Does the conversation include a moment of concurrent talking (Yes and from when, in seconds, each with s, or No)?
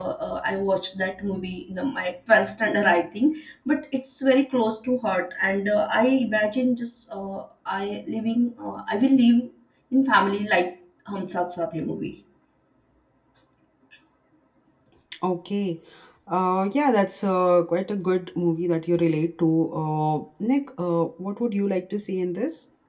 No